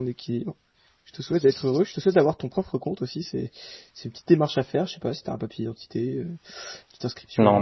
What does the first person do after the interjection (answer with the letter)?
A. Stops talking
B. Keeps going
B